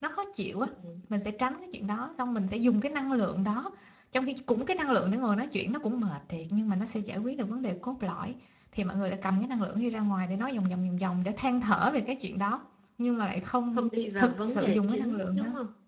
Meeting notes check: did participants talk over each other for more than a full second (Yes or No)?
Yes